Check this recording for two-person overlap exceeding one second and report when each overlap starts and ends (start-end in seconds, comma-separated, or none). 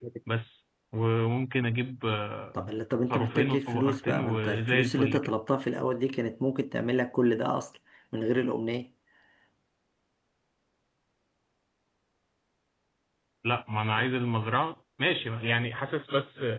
3.0-5.3